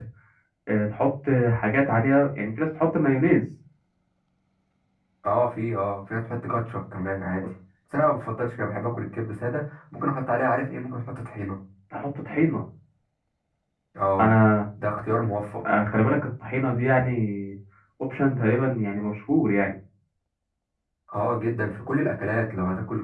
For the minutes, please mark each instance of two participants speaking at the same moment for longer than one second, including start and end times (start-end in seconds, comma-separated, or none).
none